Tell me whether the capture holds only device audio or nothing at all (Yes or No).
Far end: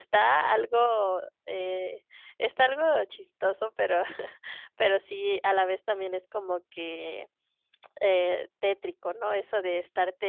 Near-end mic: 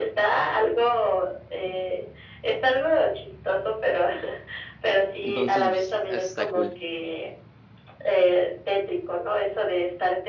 No